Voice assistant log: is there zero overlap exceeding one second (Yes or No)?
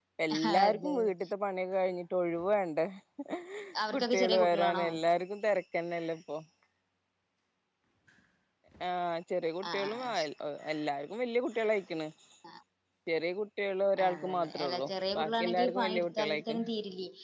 No